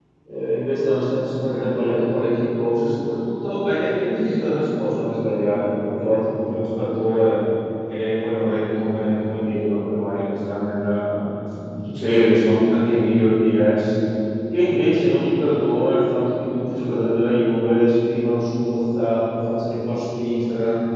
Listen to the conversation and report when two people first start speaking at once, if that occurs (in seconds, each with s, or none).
none